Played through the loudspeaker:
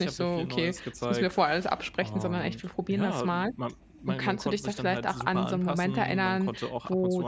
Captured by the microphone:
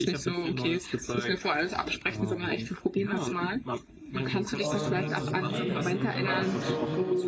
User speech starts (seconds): 4.6 s

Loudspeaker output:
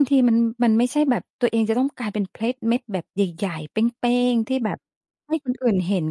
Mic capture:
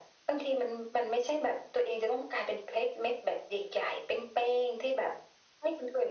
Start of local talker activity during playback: none

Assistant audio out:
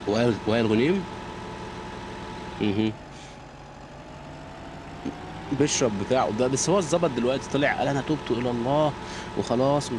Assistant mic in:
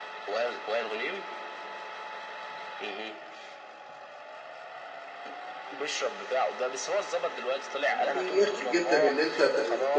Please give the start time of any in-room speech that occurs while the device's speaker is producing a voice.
7.9 s

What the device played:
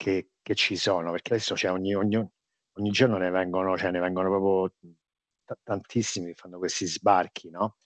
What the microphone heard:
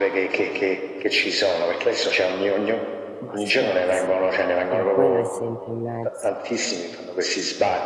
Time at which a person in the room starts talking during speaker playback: 3.2 s

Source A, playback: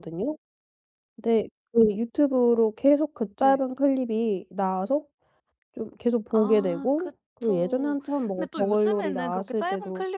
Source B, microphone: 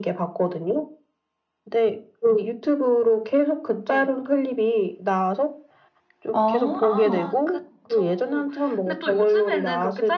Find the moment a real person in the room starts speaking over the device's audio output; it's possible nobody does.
6.3 s

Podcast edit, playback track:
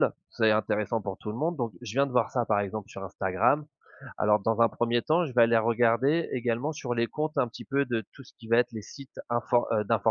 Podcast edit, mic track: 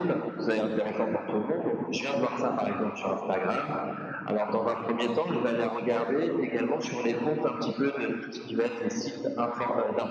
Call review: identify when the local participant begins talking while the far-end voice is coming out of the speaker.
none

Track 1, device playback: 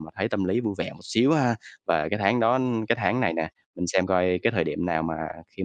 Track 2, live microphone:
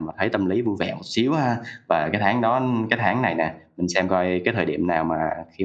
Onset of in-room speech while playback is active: none

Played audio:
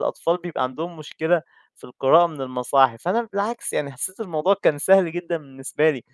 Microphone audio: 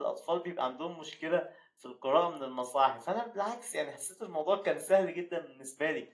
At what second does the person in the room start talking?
none

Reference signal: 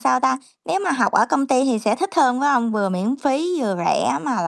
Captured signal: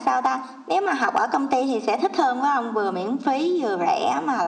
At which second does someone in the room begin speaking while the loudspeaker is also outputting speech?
none

